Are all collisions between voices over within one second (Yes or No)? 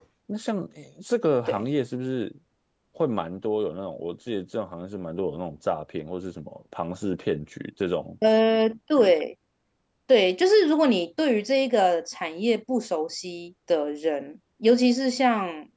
Yes